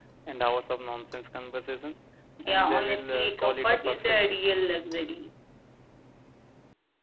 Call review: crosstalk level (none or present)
present